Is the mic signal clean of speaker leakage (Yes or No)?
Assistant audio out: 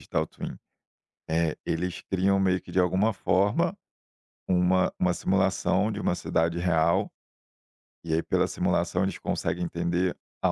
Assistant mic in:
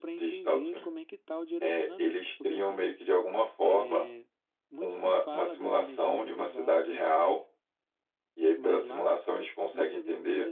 No